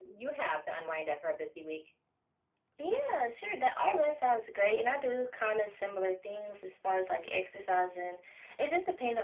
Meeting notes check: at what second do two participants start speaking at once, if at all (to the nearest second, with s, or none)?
none